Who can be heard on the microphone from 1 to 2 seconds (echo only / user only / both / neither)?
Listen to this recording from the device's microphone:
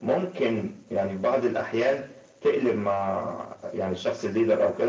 echo only